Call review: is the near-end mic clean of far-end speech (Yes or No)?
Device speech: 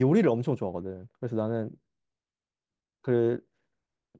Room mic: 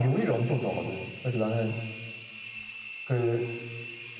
No